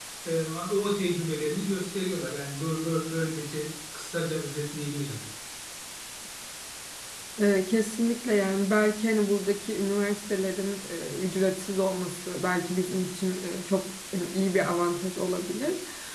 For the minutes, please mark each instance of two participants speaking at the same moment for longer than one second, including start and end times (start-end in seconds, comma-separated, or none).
none